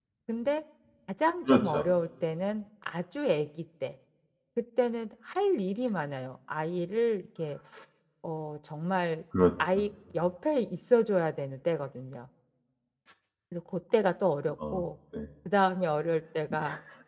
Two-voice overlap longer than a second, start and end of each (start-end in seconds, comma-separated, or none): none